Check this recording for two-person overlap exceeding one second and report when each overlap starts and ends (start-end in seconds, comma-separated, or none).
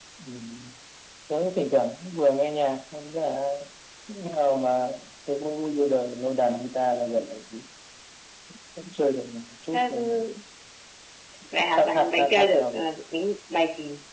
11.6-12.8